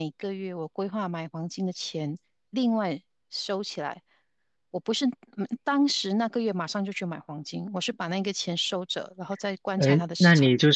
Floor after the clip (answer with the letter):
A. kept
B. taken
B